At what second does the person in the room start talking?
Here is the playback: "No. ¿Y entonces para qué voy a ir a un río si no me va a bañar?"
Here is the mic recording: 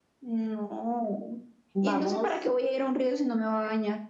1.7 s

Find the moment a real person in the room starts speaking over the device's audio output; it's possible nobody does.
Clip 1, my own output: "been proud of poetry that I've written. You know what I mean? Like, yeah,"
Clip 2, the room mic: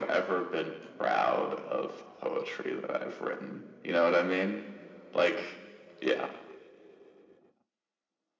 none

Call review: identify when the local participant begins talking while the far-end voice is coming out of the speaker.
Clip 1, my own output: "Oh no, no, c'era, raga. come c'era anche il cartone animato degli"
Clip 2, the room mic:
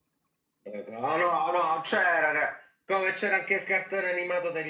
none

